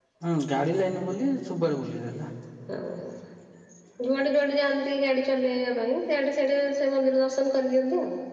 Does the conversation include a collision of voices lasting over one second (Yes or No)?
No